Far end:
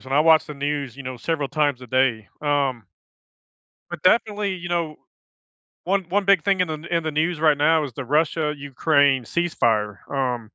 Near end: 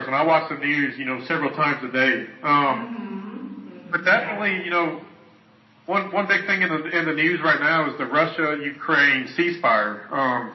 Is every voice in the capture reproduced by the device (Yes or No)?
No